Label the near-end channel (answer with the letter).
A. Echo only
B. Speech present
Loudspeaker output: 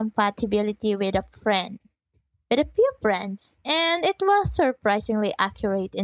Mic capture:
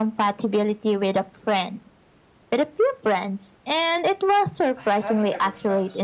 B